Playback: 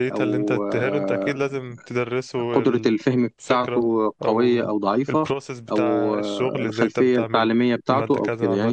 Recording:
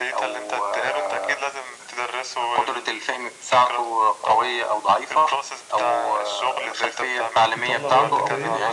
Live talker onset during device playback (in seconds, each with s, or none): 7.5 s